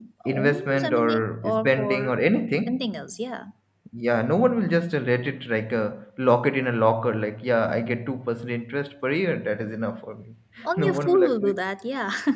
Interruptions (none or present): present